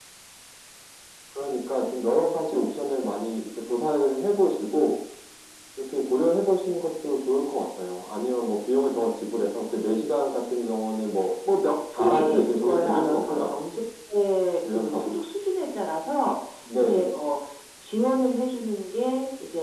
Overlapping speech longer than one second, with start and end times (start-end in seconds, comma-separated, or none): 12.0-13.5